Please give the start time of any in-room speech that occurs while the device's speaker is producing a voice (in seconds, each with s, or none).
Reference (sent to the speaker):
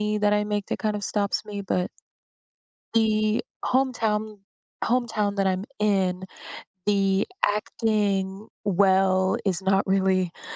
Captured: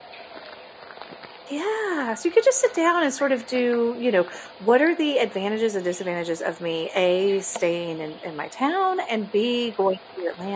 1.5 s